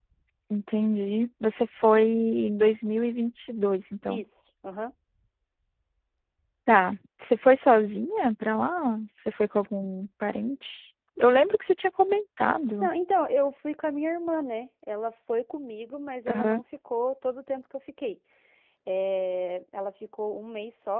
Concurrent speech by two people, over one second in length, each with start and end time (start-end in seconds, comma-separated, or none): none